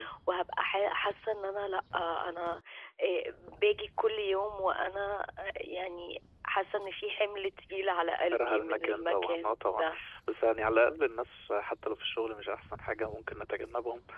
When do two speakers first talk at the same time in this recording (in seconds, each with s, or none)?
8.3 s